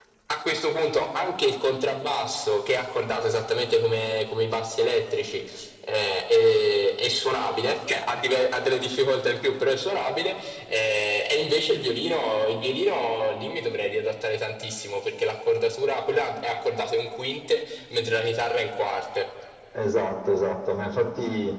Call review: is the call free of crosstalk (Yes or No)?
Yes